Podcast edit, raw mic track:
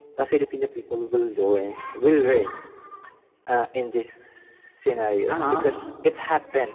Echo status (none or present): present